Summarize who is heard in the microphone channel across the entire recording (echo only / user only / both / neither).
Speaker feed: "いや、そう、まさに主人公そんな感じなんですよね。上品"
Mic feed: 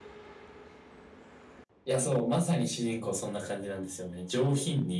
echo only